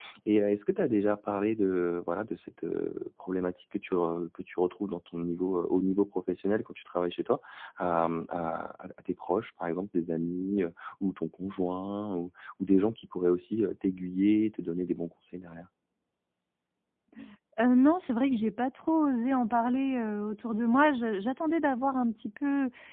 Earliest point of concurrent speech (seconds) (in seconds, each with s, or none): none